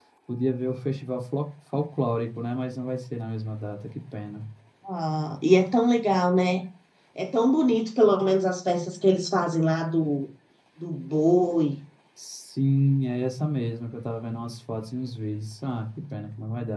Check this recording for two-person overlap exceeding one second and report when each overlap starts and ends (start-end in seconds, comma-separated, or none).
none